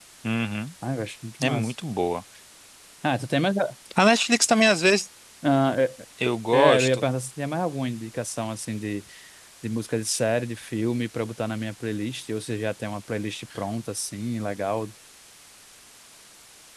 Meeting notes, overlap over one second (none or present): none